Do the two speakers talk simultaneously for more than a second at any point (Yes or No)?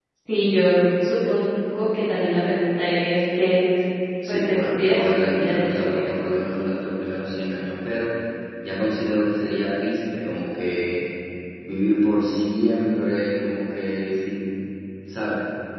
Yes